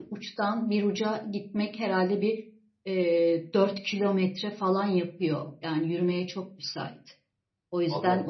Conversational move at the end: listening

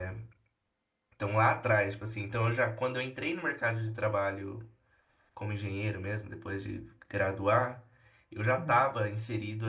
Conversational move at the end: listening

